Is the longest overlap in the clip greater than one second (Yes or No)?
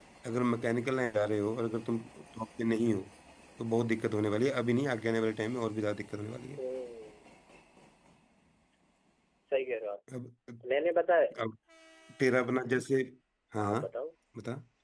No